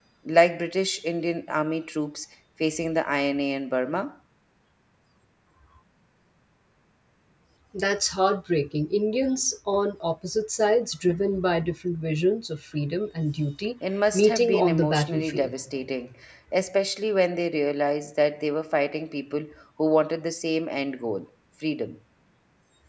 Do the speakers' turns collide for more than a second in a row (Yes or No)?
Yes